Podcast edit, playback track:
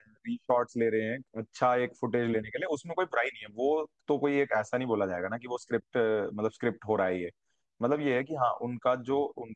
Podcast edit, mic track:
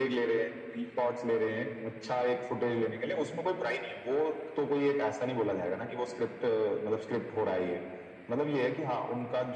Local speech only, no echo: none

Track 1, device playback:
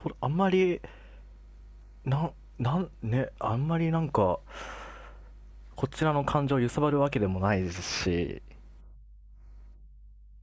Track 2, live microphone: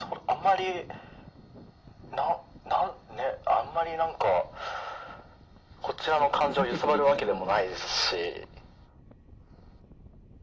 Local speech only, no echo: なんかふざけてるキャラなのに。

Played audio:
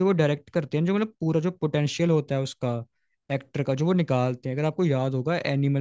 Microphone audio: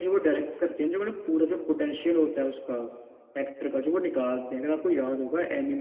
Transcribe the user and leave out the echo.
none

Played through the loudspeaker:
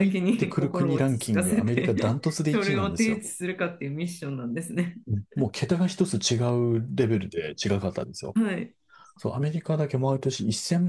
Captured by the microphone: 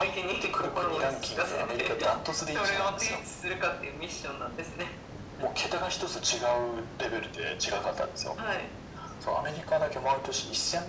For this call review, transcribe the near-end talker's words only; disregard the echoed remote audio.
none

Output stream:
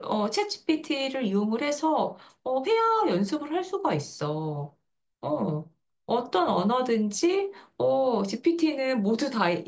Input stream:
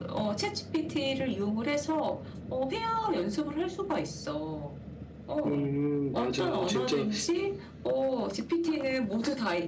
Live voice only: 음, 맞아. 진짜

